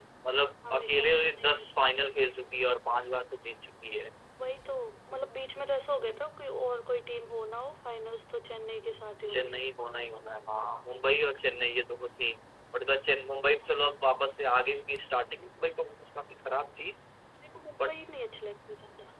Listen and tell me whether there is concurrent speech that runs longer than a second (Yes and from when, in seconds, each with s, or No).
Yes, from 0.7 s